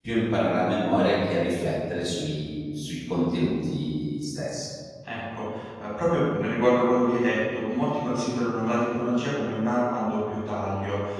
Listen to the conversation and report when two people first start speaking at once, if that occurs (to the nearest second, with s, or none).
none